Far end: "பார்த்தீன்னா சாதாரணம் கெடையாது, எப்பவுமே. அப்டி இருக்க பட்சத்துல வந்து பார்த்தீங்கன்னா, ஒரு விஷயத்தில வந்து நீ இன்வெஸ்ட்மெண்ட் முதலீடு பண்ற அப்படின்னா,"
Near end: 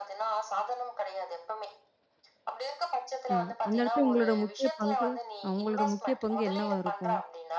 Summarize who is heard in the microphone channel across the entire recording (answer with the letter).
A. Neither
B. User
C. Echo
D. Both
D